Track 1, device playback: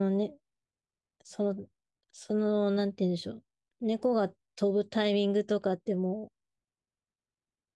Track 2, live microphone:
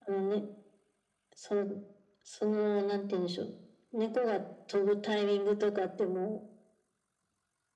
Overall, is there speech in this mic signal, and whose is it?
echo only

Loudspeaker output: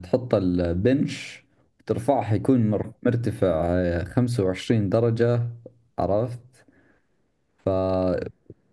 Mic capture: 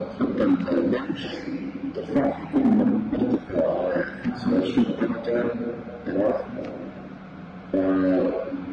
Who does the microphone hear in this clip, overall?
echo only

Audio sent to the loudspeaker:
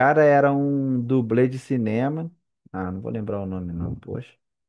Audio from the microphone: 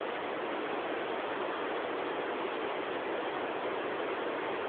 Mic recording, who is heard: neither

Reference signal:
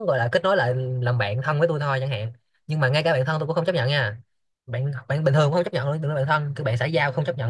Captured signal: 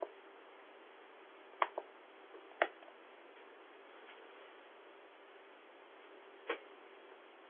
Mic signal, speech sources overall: neither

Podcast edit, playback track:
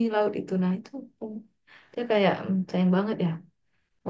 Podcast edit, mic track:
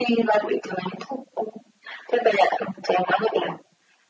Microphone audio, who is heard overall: echo only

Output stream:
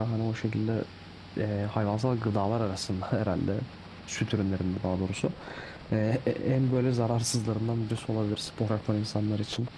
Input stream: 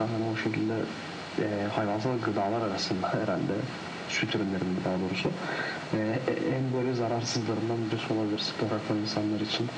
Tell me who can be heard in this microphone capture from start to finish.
echo only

